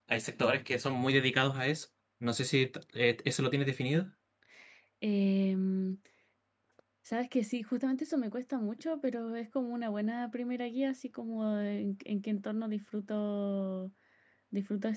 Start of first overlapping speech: none

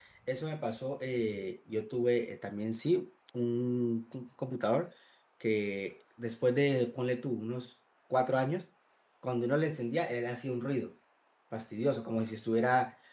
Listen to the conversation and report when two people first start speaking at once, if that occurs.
none

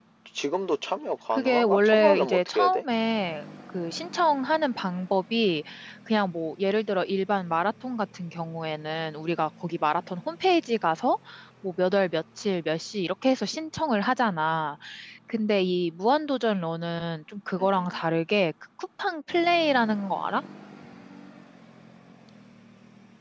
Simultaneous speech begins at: 1 s

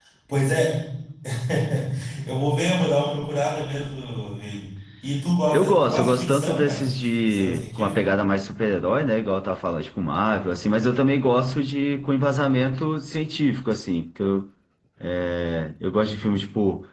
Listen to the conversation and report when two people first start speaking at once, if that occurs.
6 s

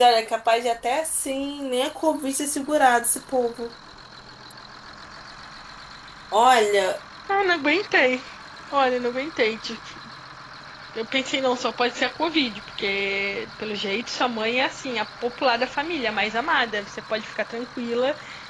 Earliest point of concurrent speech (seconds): none

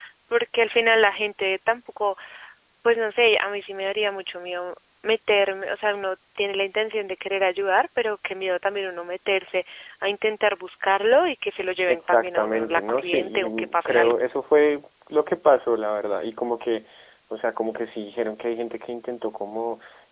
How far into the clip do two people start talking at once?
12 s

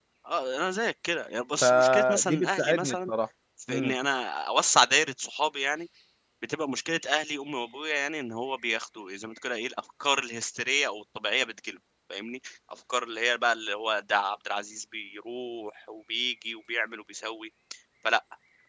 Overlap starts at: 2 s

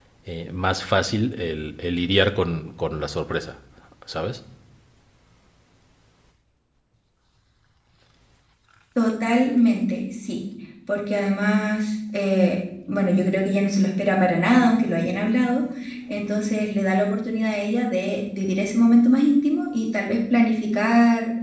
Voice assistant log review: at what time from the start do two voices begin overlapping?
none

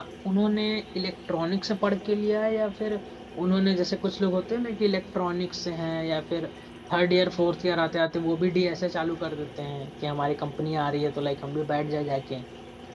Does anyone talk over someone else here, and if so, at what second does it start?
none

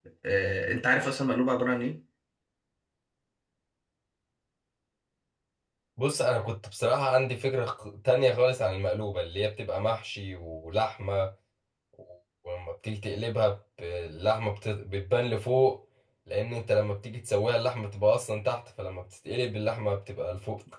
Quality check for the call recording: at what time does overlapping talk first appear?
none

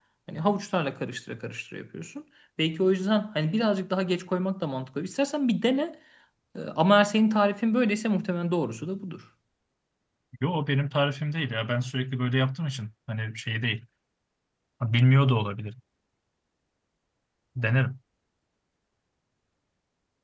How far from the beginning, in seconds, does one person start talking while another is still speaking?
none

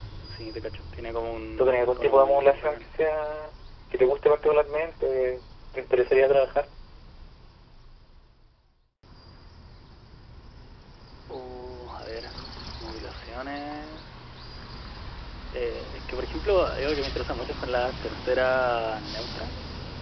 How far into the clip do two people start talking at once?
2 s

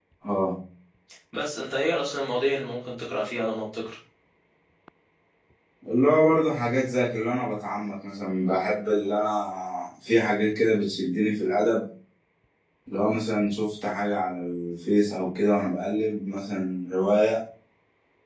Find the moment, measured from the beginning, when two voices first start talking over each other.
none

